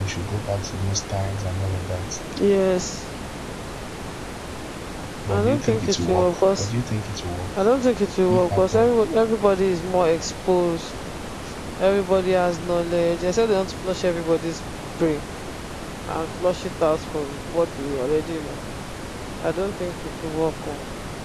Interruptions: present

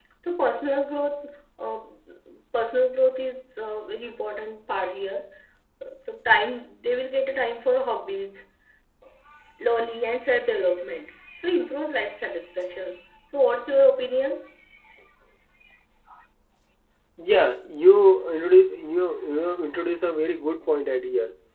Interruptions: none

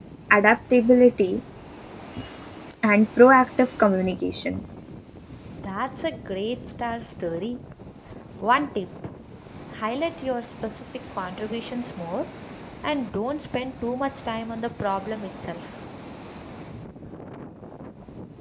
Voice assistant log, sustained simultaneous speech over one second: none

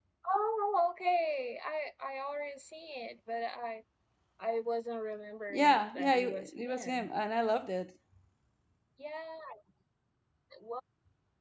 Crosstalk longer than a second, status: present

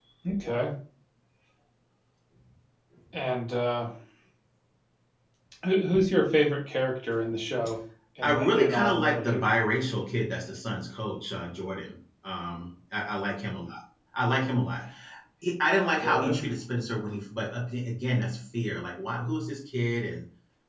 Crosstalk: present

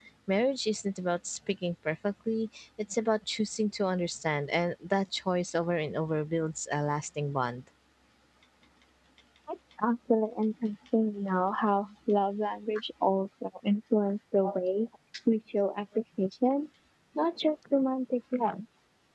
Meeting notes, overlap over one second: none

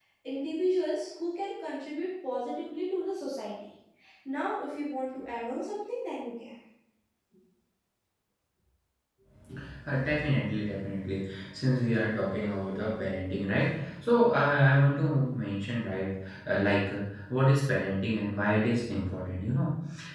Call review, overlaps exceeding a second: none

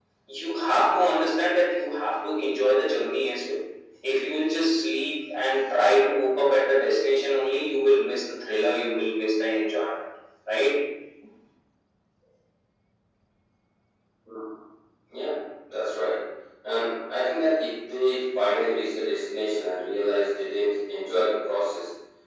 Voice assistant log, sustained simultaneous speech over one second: none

